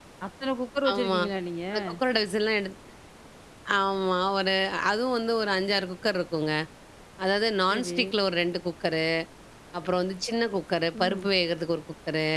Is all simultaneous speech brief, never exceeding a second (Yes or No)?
Yes